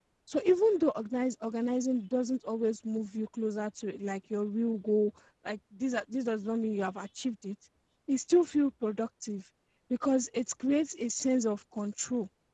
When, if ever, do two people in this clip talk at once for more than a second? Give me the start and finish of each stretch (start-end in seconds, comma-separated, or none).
none